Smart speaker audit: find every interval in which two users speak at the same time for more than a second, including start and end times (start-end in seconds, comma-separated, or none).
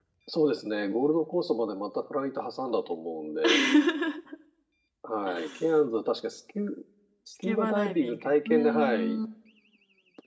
7.4-9.2